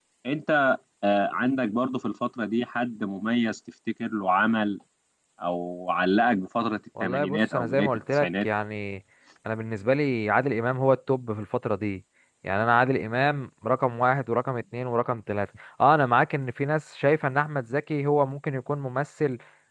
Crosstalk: present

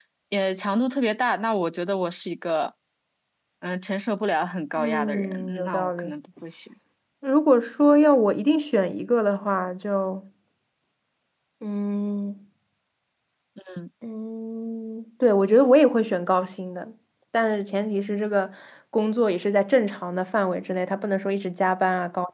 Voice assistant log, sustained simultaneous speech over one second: present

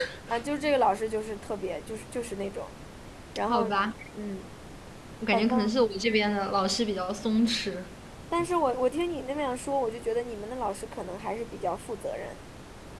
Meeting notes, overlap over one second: none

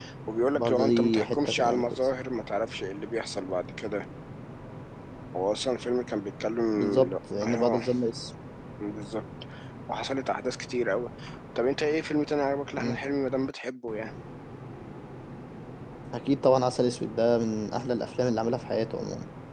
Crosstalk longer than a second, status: present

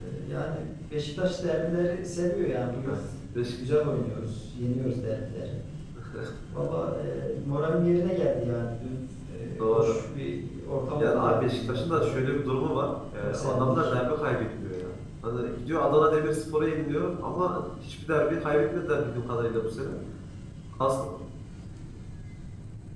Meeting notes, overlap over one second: present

